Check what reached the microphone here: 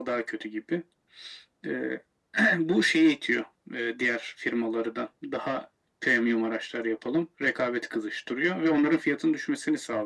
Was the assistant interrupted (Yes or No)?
No